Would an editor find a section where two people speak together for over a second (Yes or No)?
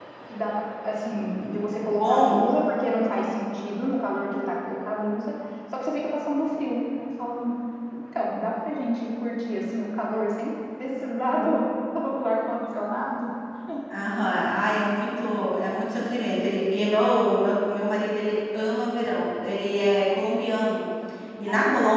No